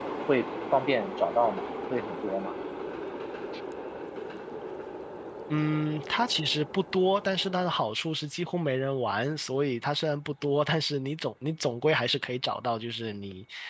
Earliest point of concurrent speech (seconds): none

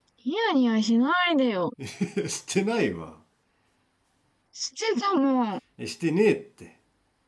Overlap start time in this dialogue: none

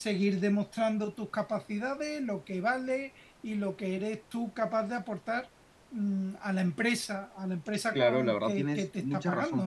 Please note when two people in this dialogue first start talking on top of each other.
7.9 s

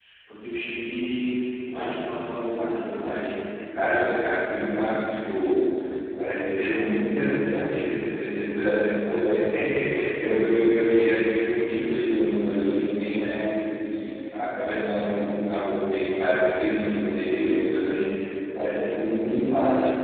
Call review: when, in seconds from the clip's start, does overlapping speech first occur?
1.7 s

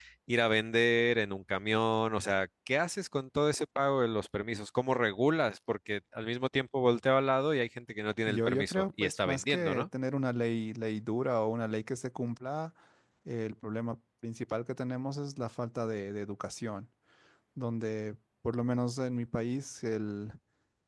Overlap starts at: 8.3 s

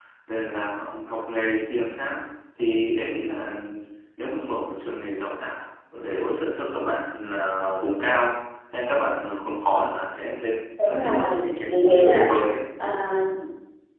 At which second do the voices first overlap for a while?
10.8 s

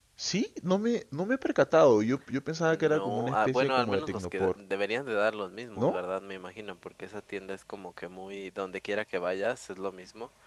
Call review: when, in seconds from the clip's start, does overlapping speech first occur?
2.7 s

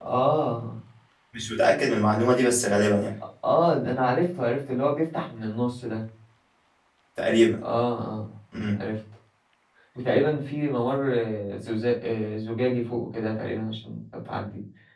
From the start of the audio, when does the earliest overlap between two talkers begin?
none

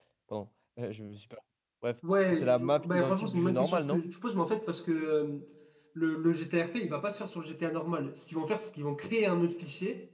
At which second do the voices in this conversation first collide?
2.3 s

